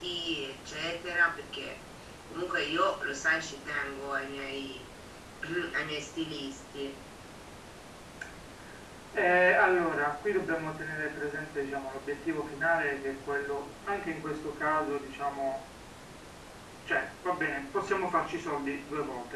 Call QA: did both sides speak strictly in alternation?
Yes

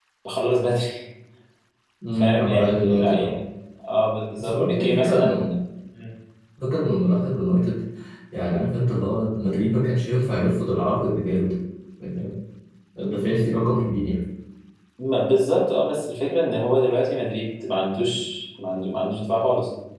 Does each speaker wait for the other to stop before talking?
No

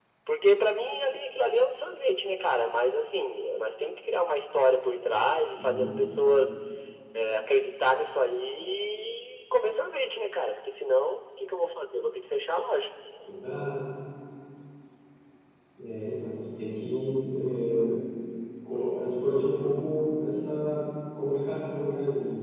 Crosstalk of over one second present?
No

